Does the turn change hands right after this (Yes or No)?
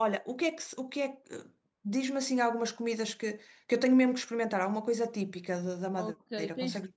Yes